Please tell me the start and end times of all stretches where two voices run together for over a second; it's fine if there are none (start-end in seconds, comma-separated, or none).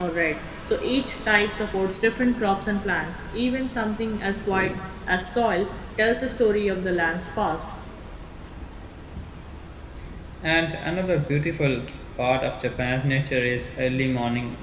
none